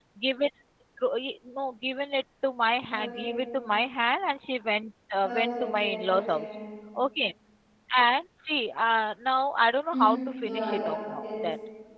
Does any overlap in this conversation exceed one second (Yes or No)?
Yes